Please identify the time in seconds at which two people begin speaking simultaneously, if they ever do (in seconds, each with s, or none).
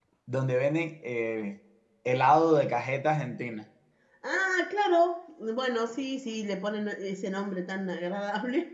none